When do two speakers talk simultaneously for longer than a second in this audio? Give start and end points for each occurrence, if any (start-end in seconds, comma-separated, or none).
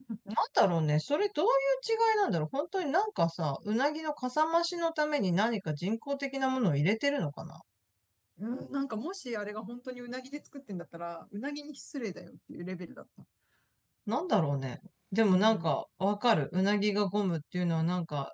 none